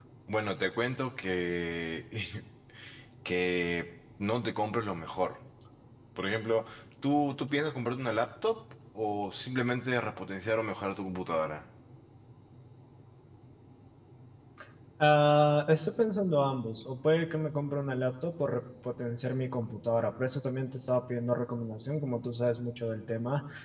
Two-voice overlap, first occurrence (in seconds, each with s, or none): none